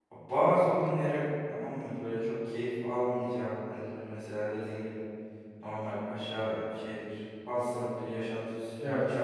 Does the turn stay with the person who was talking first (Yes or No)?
Yes